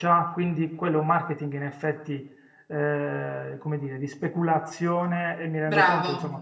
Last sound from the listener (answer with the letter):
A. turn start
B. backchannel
B